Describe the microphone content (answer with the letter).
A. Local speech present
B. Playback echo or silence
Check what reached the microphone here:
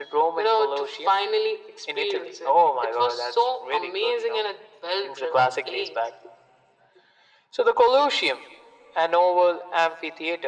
B